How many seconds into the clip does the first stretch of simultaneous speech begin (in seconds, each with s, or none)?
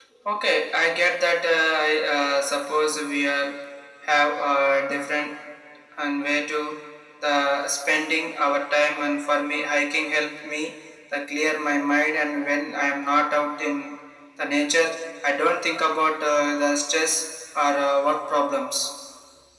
none